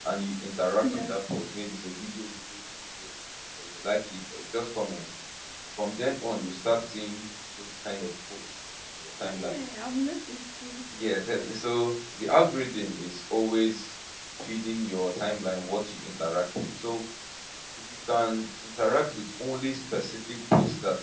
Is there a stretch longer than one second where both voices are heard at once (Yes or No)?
No